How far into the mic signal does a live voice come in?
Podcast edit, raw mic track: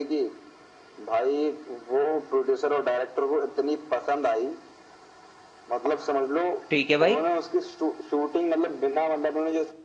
6.7 s

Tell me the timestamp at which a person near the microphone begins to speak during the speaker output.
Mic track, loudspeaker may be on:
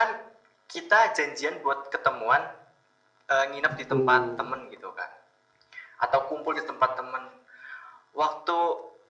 3.7 s

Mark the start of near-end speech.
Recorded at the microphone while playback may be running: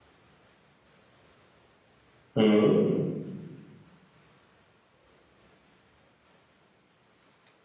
2.4 s

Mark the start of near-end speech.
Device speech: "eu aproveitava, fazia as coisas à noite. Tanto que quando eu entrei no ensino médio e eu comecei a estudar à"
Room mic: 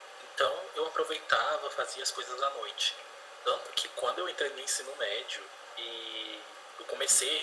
none

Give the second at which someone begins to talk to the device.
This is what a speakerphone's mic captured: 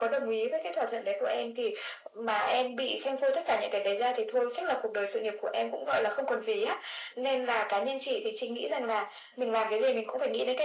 none

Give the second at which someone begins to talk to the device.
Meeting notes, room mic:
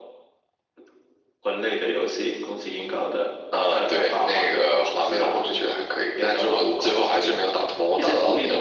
none

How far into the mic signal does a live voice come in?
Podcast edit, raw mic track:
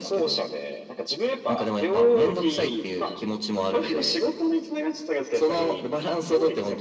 none

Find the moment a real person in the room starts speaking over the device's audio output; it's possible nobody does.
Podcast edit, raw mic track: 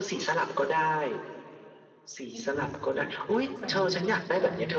2.3 s

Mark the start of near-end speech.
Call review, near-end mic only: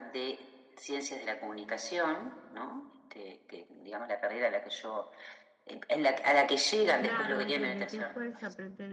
6.9 s

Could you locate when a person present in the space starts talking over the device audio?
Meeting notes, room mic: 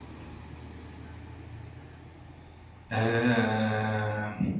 2.9 s

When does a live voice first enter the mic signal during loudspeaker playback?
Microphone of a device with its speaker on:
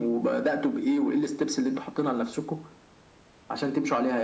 none

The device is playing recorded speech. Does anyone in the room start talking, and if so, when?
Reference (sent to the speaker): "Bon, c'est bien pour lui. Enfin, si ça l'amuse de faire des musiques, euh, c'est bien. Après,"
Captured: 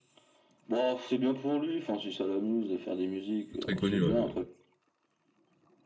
3.6 s

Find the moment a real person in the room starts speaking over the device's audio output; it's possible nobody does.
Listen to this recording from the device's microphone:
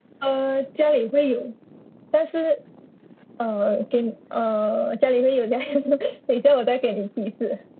none

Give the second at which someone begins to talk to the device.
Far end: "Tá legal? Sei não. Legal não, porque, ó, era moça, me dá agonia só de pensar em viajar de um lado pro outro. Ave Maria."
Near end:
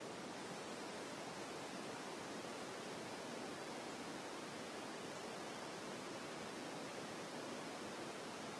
none

